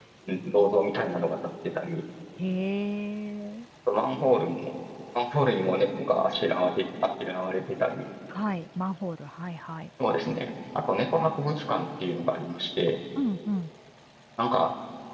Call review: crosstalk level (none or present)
none